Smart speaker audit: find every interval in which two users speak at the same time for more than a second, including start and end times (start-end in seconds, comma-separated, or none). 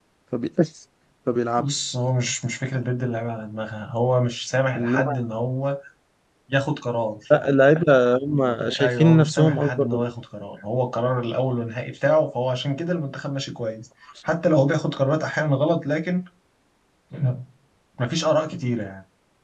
8.8-10.1